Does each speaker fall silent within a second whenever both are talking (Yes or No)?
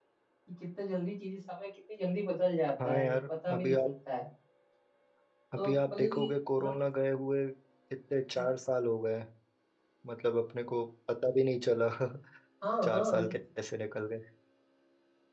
No